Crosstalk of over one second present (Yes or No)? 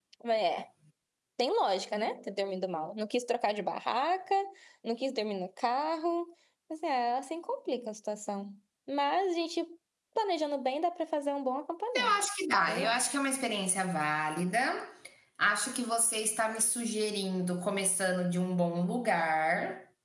No